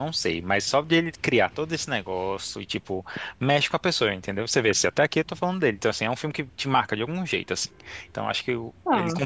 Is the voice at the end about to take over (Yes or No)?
No